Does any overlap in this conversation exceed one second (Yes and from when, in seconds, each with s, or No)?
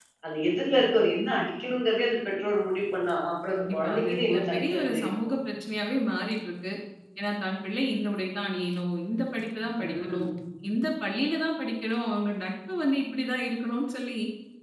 Yes, from 3.5 s